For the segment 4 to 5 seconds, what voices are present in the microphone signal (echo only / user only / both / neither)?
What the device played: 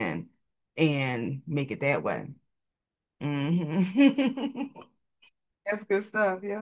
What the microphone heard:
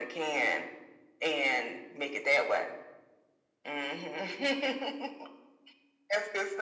echo only